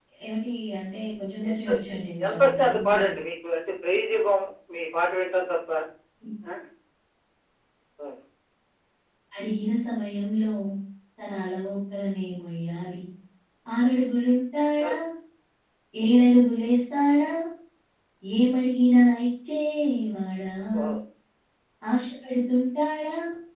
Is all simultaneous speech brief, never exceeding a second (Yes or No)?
No